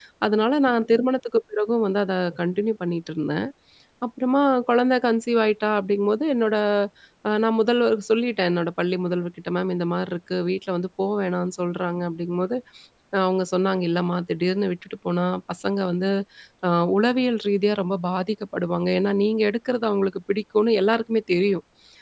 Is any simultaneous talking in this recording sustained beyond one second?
No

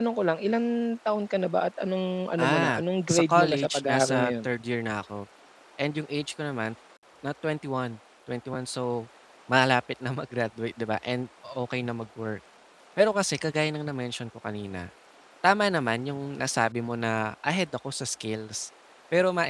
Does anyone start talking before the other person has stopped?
Yes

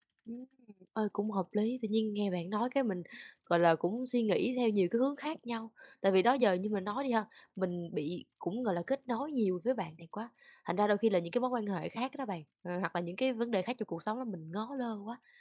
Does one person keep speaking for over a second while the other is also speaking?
No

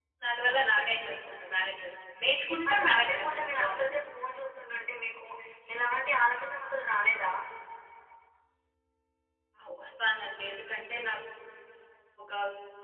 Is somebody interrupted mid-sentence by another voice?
Yes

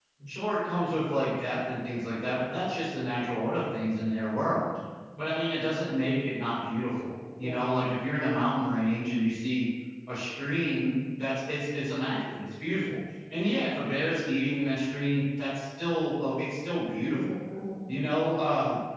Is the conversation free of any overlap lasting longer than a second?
Yes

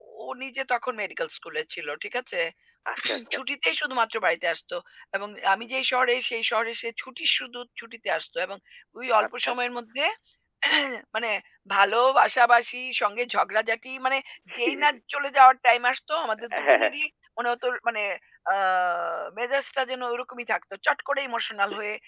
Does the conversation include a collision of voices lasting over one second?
No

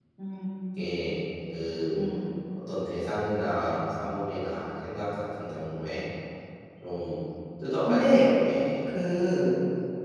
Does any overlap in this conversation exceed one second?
No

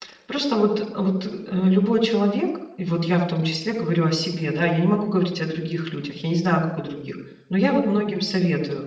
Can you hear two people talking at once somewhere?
No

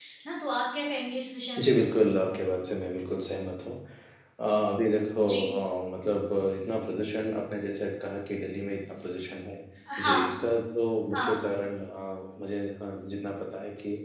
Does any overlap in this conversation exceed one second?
No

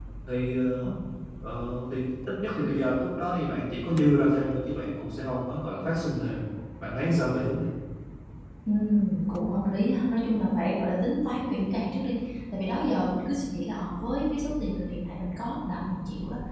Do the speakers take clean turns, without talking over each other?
Yes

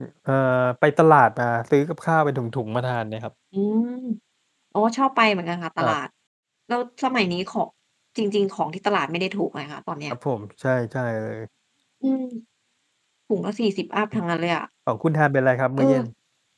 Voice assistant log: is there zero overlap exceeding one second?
Yes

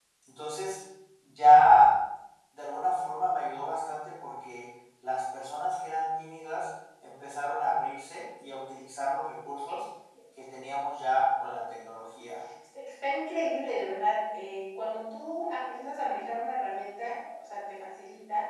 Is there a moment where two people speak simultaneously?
No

